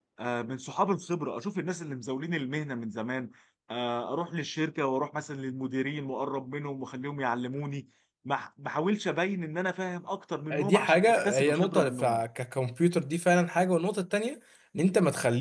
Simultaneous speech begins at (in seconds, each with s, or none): 10.5 s